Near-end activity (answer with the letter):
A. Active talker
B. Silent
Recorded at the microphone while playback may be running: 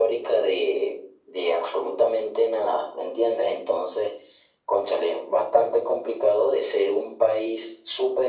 B